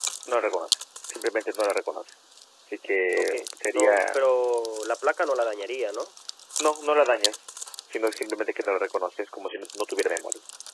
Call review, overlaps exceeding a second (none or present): none